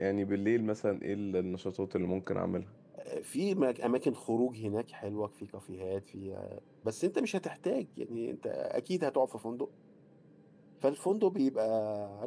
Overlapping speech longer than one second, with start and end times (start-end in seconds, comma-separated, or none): none